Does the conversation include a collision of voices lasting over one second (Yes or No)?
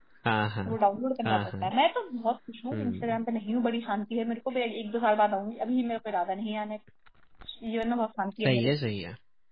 No